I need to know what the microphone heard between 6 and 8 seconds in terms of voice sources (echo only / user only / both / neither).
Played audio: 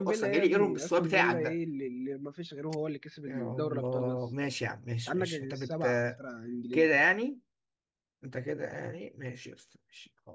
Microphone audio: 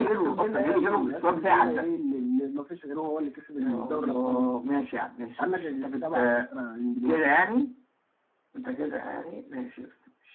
echo only